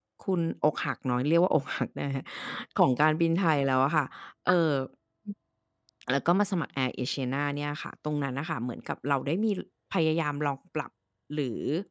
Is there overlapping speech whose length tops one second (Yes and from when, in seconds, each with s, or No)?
No